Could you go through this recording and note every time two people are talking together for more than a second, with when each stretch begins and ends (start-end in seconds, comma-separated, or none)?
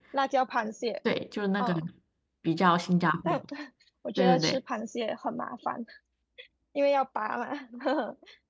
none